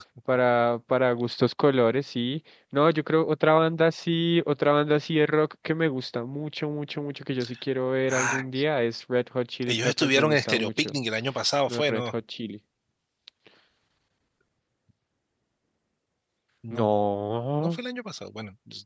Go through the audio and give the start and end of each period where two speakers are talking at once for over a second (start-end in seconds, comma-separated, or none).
9.7-11.0